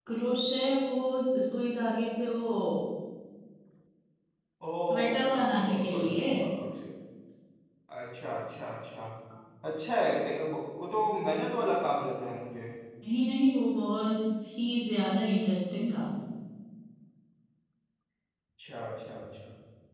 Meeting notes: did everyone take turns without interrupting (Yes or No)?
No